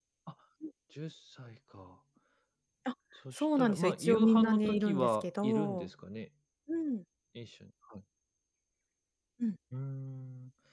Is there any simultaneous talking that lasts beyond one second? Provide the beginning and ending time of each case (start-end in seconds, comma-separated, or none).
3.3-5.9